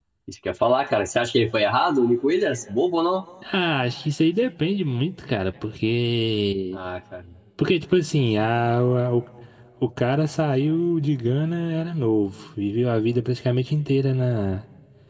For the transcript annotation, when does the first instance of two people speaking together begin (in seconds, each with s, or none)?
none